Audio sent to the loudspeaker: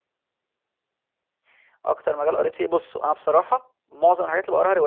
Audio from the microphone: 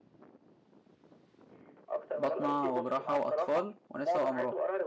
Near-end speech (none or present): present